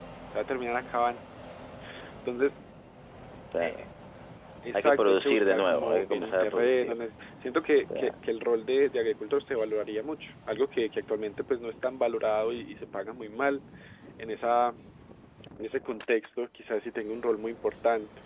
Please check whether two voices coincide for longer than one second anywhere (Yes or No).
Yes